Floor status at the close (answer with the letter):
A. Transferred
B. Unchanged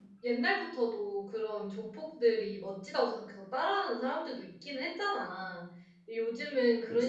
B